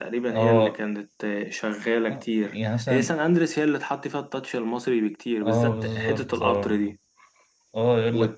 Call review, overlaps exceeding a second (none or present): present